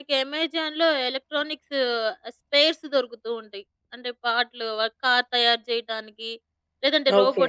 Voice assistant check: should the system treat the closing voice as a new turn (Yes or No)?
No